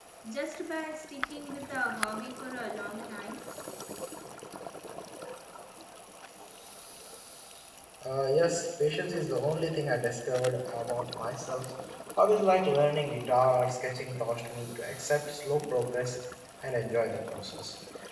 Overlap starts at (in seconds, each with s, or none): none